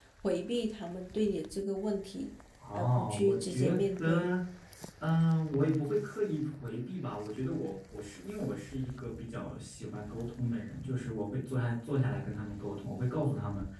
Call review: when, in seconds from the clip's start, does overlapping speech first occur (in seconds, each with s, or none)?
2.6 s